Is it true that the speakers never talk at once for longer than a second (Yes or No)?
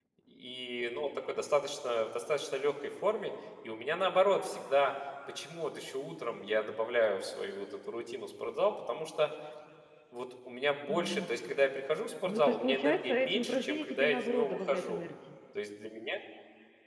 No